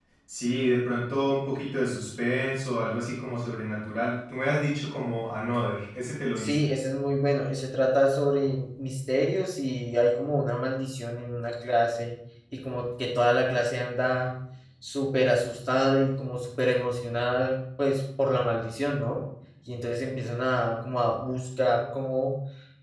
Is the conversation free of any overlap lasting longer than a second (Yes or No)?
Yes